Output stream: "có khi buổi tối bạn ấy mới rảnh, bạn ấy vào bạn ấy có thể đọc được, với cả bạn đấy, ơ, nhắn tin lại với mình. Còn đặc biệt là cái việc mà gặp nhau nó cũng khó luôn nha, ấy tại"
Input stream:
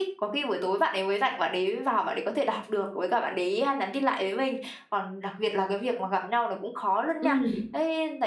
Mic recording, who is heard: both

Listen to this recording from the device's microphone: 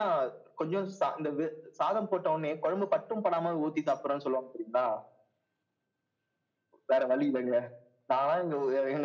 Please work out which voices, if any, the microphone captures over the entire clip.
echo only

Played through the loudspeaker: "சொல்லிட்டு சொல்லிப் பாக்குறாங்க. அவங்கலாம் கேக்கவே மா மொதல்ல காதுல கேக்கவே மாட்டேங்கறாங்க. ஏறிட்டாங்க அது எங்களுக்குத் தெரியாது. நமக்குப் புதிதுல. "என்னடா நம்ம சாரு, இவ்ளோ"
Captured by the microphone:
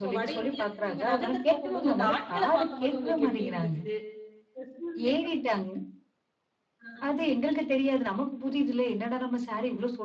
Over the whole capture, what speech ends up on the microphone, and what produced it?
both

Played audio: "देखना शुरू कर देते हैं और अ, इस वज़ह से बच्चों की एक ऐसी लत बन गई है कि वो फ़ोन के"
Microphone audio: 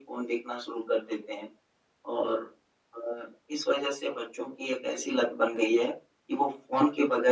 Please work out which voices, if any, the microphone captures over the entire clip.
echo only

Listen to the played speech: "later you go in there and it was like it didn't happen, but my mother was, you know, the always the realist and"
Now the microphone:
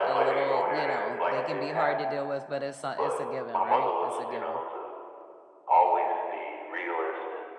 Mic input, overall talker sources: both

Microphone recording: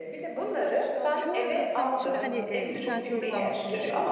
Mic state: both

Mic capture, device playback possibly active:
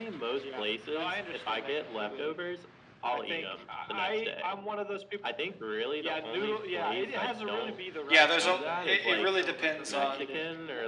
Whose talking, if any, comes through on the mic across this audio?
both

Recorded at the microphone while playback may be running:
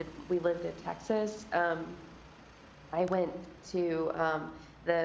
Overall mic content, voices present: user only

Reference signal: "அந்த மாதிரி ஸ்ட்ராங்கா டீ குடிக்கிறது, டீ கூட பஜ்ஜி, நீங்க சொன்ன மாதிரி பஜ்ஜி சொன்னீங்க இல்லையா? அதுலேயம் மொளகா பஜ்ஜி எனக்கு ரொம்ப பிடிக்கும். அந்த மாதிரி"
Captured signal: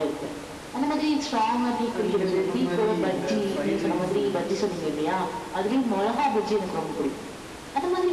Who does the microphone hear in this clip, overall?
both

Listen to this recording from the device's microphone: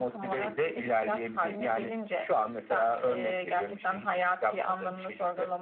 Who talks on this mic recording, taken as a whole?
echo only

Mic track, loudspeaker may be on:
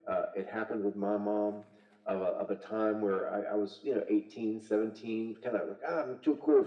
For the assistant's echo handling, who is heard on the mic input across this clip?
echo only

